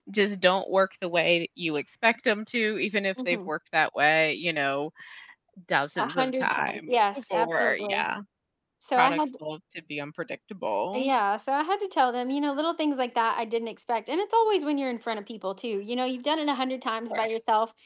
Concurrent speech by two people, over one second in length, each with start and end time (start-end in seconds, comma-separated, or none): 6.0-8.0